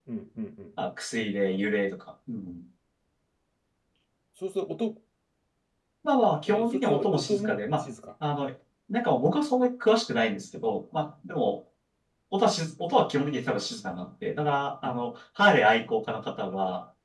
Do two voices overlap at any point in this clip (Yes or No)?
Yes